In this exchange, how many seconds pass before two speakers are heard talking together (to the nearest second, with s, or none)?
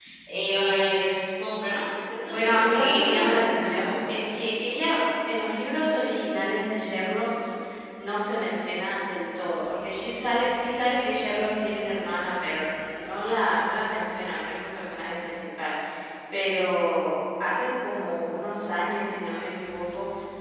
2 s